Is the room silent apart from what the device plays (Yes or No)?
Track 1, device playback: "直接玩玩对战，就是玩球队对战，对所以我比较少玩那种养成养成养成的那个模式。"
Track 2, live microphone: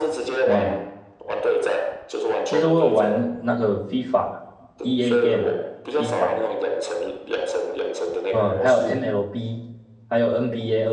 No